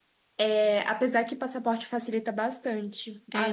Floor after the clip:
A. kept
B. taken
B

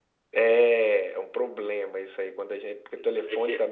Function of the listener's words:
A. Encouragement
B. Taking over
A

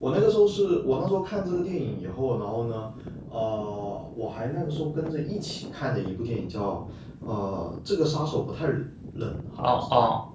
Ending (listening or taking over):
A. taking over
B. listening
A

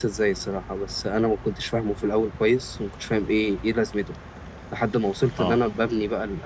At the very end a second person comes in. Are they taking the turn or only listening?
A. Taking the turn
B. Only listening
B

